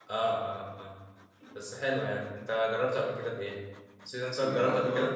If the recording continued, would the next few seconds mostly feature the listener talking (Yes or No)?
Yes